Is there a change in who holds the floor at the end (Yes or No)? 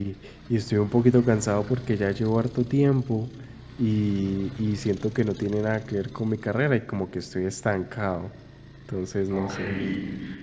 Yes